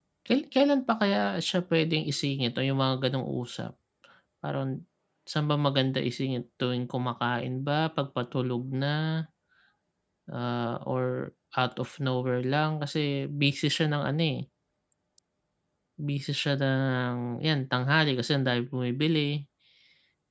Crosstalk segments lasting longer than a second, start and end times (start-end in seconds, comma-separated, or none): none